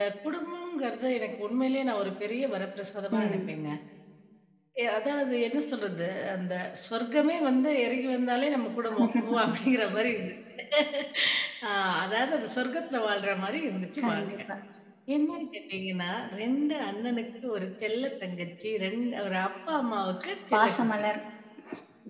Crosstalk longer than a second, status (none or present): none